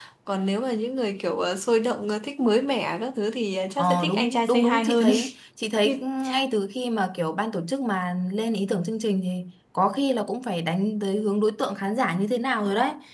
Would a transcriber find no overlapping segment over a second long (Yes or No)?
No